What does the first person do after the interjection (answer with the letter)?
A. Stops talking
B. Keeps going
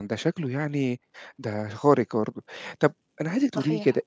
B